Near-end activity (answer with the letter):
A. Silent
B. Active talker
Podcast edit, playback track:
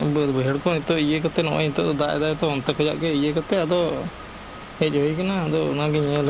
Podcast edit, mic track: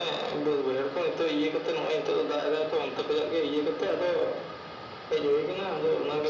A